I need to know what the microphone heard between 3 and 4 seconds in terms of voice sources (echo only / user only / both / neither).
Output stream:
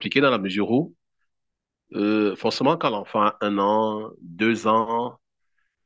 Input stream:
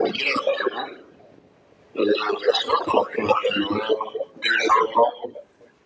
echo only